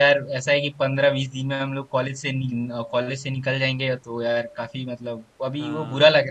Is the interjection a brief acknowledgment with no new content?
Yes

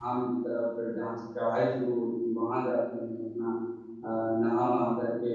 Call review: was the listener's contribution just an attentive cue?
Yes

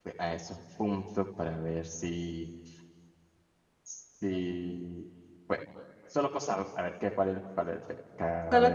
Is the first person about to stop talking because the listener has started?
No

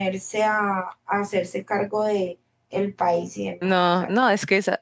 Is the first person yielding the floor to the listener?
Yes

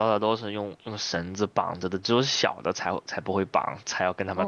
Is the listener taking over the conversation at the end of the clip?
Yes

